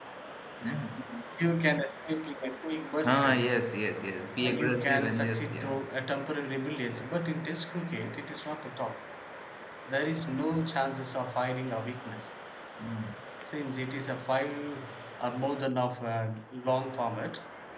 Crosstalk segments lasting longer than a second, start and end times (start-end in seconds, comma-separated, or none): 4.5-5.7